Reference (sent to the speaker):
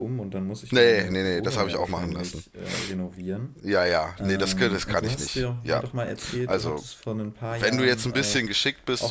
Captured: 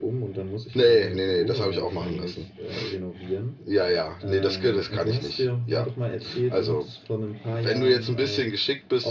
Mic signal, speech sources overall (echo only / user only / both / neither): echo only